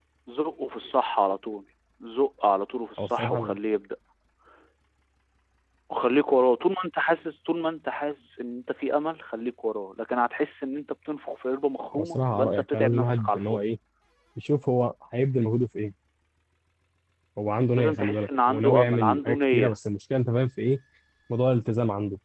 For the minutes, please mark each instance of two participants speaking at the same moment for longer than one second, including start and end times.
11.9-13.7, 17.8-19.8

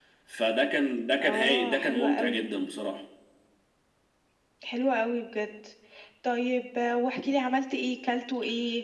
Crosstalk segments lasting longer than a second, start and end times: 1.2-2.5

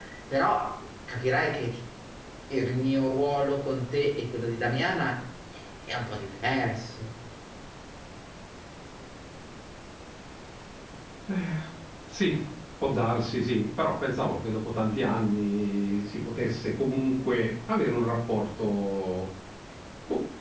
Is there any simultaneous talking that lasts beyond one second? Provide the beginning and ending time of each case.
none

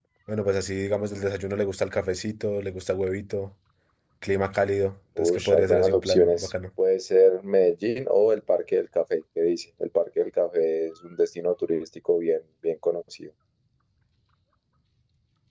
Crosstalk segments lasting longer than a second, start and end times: 5.2-6.5

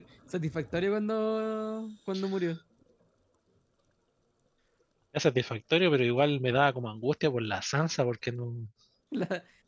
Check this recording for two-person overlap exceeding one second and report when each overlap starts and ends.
none

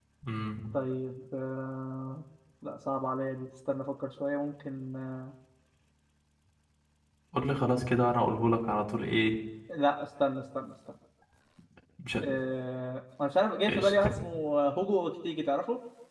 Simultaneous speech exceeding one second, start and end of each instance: none

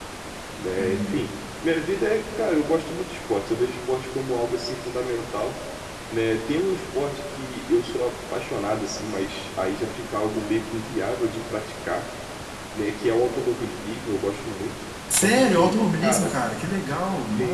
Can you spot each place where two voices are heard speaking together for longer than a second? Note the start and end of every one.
15.1-16.4

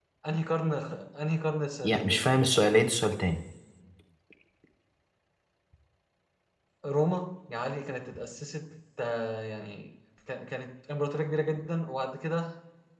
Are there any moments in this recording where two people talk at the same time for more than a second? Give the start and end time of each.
none

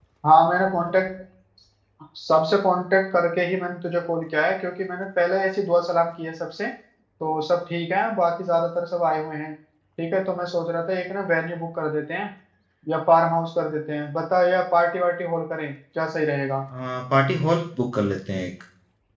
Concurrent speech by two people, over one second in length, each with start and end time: none

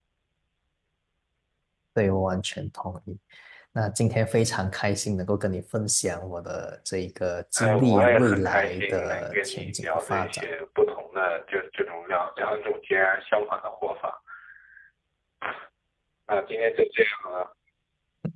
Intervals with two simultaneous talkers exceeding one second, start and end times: 7.6-10.4

